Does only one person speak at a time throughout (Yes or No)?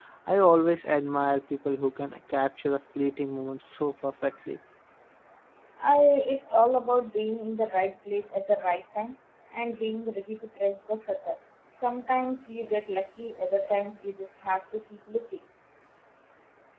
Yes